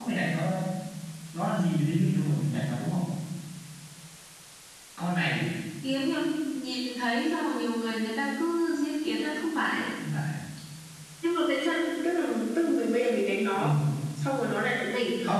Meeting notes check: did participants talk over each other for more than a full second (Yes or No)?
No